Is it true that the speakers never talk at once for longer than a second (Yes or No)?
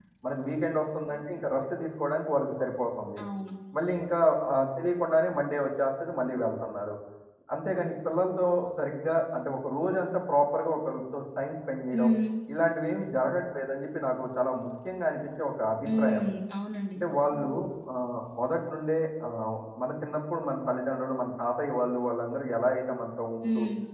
Yes